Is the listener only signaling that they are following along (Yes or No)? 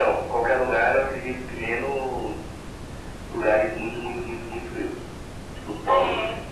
No